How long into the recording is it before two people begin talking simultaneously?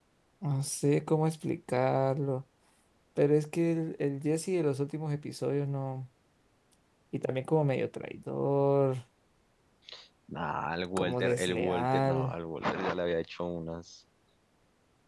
11.0 s

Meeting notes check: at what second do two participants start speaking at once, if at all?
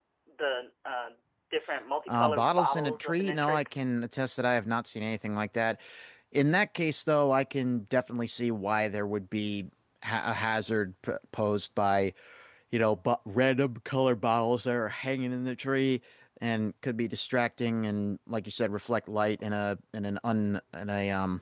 2.1 s

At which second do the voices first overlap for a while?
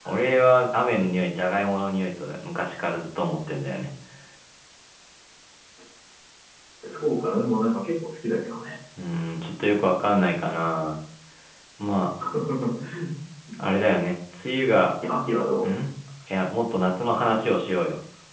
none

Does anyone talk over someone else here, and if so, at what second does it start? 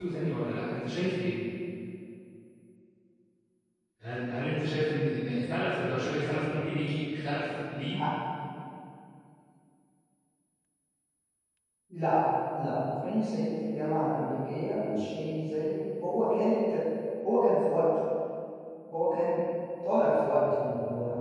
none

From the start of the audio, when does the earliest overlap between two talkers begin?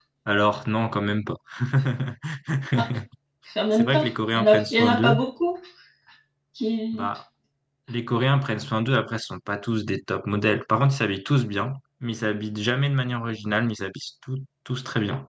3.7 s

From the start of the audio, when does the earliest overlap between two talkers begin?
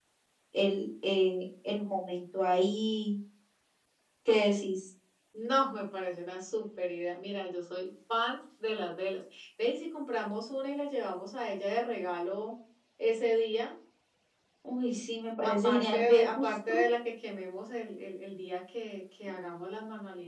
15.4 s

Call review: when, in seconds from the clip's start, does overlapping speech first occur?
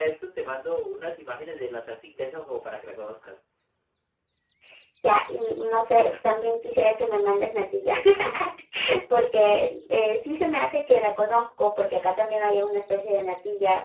none

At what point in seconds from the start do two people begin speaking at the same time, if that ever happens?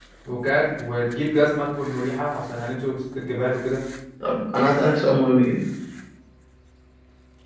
none

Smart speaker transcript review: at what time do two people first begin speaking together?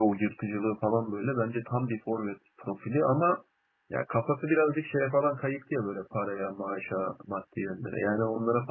none

